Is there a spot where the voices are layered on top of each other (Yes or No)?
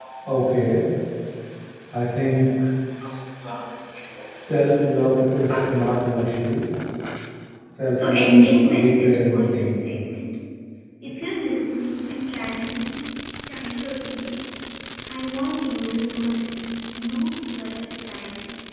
Yes